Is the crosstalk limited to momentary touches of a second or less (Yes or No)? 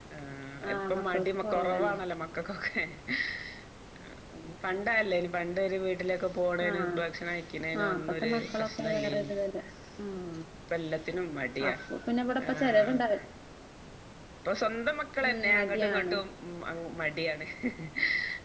No